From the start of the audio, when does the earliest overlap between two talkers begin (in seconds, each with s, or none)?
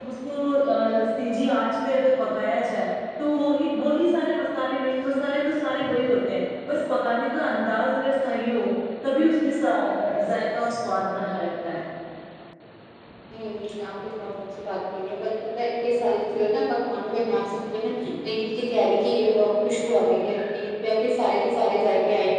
none